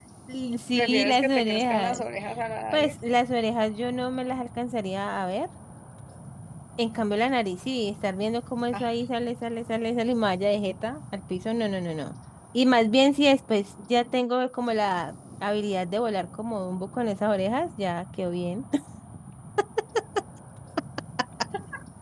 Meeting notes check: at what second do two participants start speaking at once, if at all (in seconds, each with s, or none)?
0.8 s